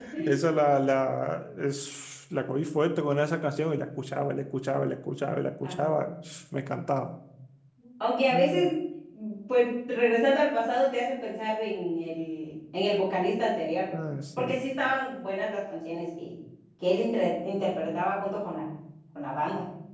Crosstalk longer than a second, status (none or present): none